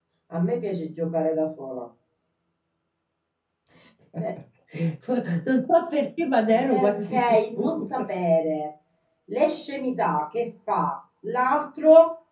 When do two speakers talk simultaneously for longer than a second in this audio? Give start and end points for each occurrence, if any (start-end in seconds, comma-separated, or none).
6.7-8.1